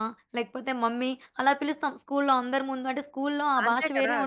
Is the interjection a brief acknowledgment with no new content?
No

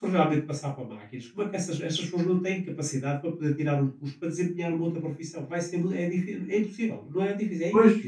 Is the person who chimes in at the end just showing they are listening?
No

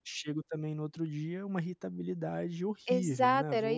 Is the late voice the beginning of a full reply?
Yes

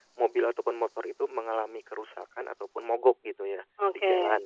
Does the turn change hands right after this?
No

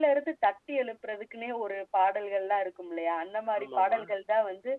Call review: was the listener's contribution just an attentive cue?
Yes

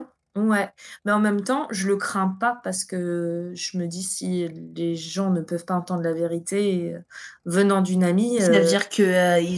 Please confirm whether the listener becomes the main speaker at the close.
Yes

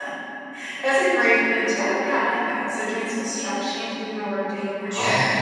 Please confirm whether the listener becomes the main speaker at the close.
Yes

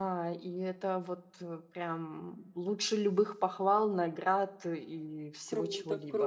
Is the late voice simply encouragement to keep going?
No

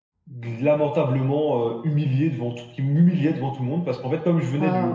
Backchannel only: Yes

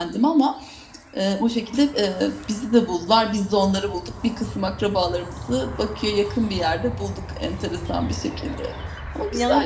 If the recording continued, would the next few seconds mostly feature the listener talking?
Yes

